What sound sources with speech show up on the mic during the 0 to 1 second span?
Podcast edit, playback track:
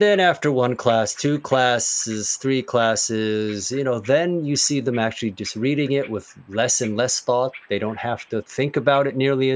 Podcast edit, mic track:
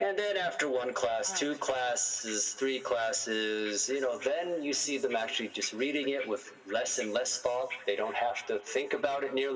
echo only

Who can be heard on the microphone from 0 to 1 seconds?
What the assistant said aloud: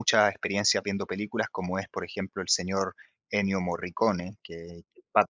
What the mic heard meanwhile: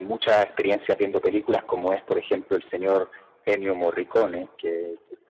echo only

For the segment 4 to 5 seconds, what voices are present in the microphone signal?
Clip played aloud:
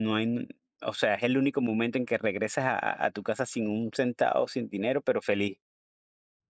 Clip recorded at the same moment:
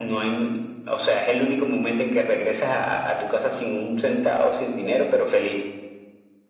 echo only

